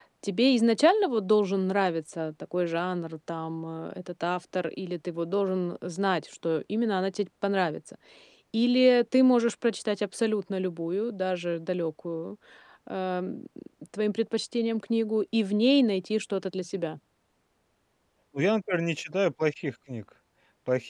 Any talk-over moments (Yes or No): No